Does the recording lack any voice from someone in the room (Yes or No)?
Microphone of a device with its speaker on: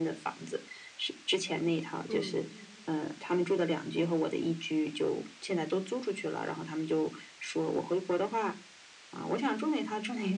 No